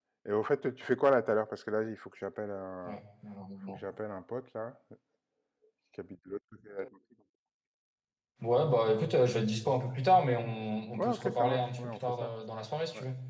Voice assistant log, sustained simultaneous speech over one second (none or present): present